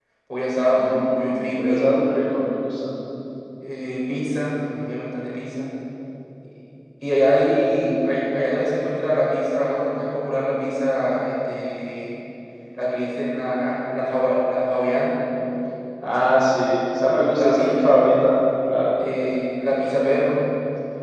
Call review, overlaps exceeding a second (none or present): present